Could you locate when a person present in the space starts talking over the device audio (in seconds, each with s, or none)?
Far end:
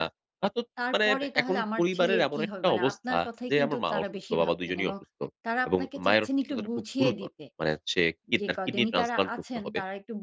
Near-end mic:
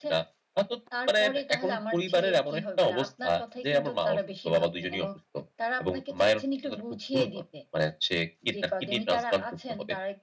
none